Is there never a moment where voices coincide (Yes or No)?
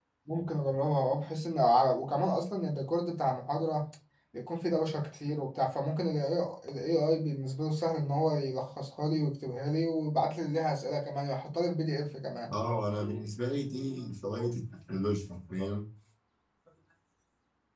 Yes